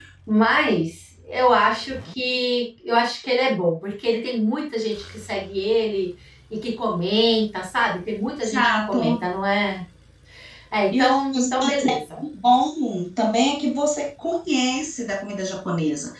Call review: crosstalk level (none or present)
present